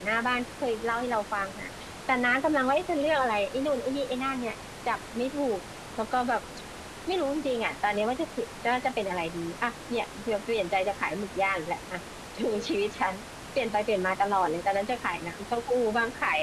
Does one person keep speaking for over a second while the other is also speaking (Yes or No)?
No